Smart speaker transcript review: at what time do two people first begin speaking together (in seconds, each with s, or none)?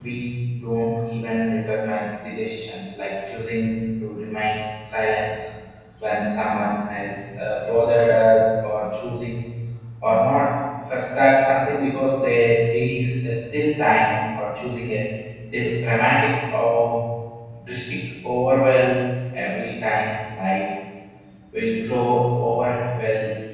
none